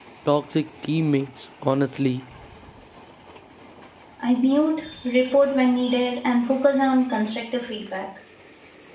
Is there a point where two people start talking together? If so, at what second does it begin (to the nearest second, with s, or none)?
none